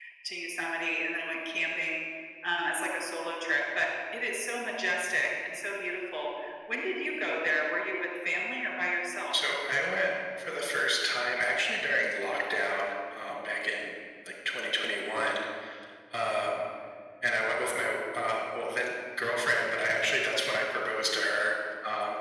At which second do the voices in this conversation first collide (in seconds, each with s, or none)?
none